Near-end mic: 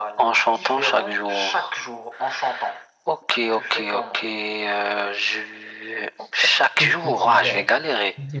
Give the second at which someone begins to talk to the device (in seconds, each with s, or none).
6.7 s